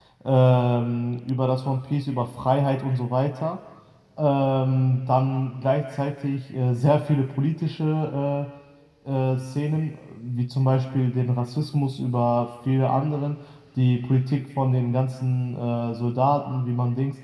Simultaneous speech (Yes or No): No